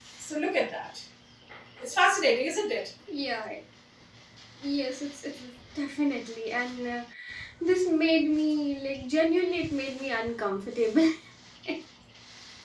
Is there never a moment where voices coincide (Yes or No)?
Yes